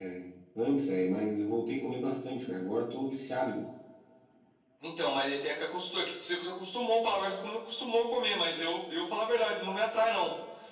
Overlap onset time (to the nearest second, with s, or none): none